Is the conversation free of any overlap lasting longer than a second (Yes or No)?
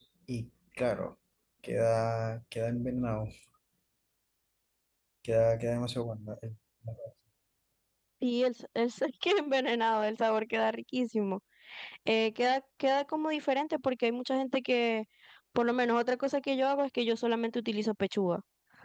Yes